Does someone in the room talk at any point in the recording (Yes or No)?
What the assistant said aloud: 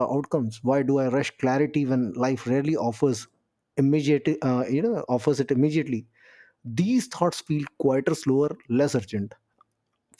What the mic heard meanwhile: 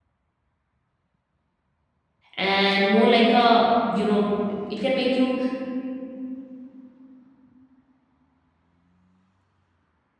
Yes